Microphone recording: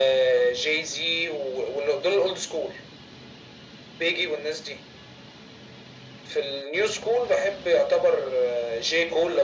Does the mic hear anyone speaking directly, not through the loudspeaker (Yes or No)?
No